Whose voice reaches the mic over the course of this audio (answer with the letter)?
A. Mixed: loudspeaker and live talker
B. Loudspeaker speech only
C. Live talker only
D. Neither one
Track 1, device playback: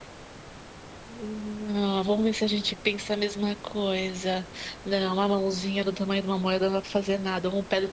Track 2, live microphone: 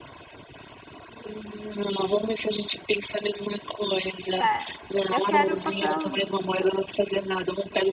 A